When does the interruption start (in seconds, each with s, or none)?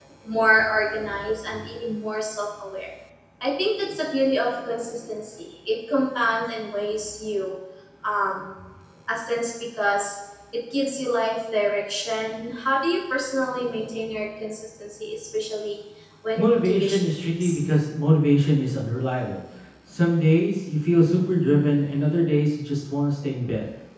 16.4 s